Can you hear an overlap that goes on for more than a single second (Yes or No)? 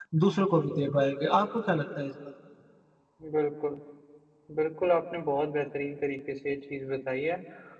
No